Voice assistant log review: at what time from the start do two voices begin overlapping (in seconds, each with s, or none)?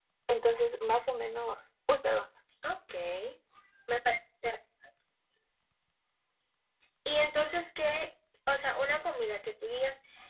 none